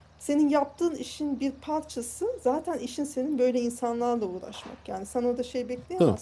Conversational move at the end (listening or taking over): listening